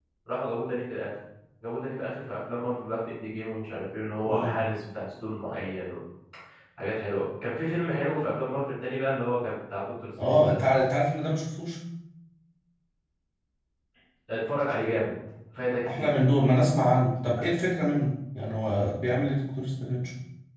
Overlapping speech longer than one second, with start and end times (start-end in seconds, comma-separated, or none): none